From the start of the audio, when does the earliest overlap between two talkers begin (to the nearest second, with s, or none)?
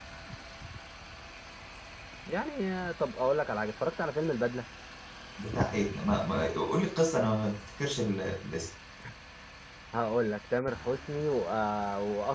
none